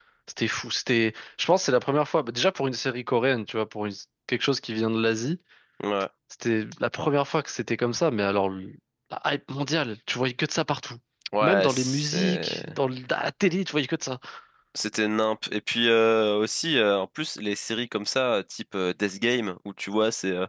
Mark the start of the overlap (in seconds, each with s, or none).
11.4 s